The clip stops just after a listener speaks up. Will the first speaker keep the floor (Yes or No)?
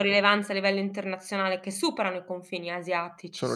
Yes